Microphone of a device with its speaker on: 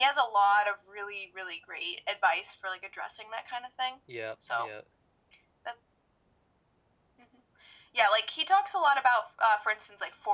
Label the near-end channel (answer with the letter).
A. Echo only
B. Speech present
B